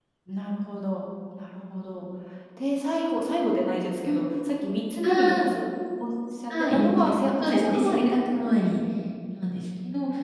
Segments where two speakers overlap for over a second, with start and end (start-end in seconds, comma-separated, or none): 6.5-8.4